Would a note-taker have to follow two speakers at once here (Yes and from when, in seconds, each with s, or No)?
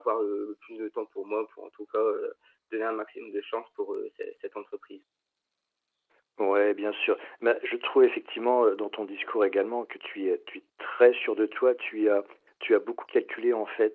No